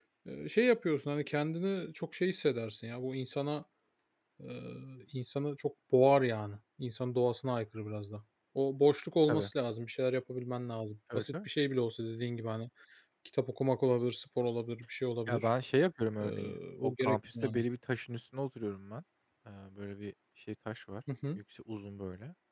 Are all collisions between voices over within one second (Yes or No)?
No